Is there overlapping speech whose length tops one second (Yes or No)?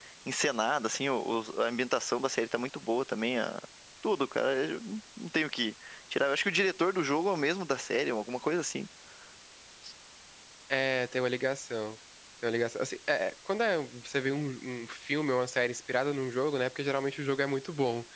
No